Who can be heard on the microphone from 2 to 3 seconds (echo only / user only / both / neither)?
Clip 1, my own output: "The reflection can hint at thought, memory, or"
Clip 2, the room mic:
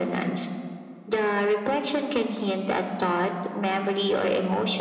echo only